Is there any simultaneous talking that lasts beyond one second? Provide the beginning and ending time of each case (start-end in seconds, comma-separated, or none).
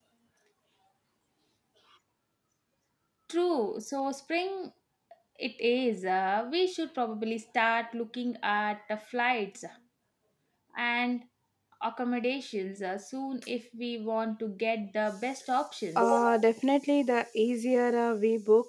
none